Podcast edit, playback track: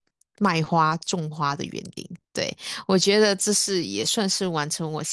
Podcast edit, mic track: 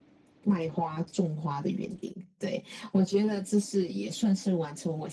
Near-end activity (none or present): none